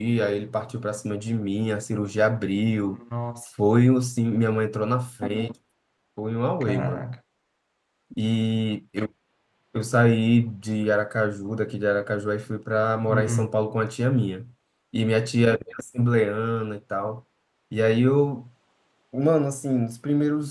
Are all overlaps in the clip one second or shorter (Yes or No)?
Yes